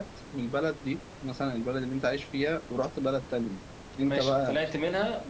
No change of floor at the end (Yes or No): No